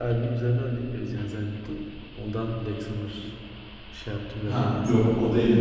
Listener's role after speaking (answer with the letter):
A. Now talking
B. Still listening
A